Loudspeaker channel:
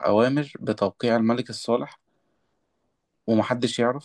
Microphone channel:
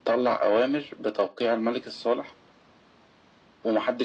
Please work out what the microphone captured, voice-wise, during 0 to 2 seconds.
echo only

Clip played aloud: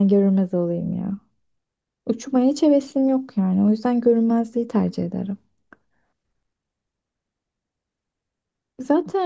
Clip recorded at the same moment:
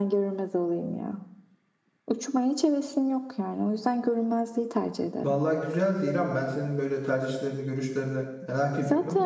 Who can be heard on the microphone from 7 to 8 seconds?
user only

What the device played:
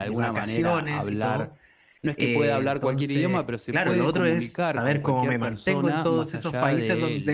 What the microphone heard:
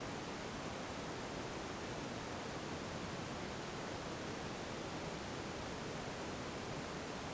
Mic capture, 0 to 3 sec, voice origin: neither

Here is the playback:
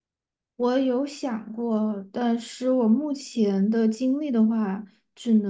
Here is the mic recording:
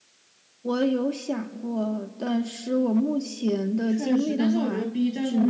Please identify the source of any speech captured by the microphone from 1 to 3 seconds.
echo only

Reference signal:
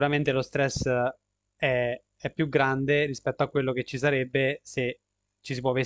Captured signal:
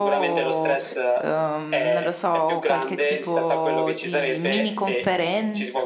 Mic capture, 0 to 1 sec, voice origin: both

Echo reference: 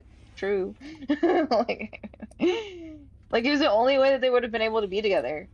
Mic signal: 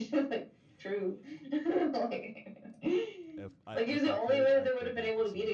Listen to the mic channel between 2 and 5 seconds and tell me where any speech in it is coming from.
both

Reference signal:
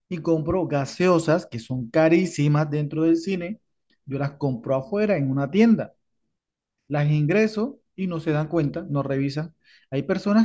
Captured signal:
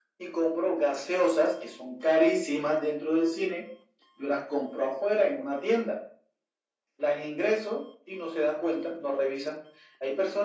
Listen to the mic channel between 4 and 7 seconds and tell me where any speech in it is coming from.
echo only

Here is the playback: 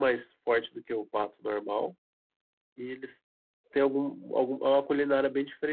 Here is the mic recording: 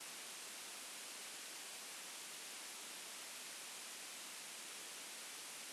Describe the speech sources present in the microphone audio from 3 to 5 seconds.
neither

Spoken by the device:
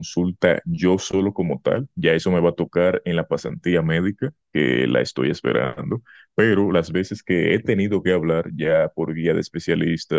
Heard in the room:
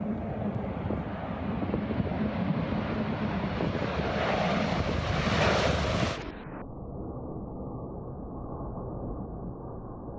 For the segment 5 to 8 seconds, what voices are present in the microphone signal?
neither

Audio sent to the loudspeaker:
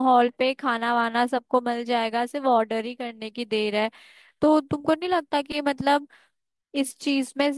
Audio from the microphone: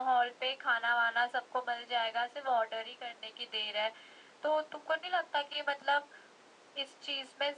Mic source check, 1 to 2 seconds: echo only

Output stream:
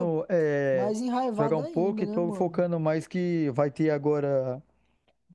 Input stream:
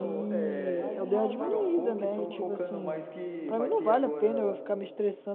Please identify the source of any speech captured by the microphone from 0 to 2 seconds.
both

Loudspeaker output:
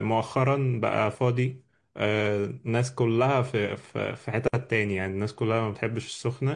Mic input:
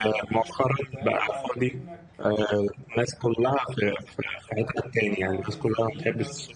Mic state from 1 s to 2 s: both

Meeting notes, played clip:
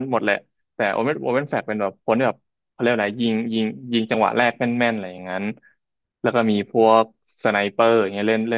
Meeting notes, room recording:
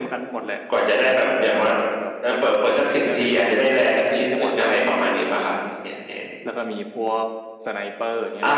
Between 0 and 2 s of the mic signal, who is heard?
both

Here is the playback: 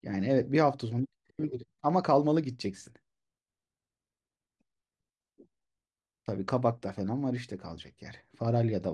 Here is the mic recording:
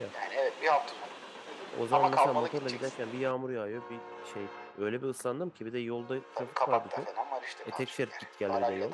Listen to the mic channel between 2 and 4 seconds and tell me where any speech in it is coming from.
both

